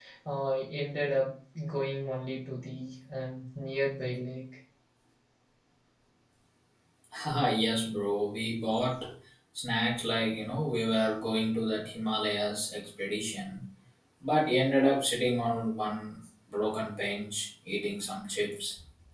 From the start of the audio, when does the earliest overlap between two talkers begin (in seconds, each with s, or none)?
none